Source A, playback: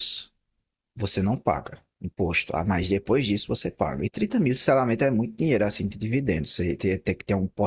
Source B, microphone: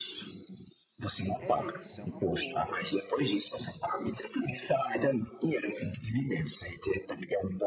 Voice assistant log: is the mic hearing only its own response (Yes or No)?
No